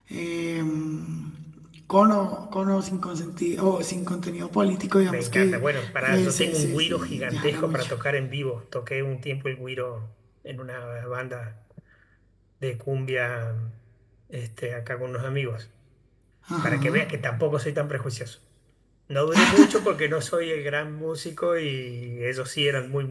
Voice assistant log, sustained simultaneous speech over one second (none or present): present